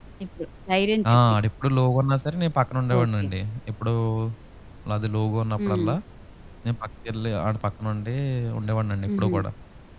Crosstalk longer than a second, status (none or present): none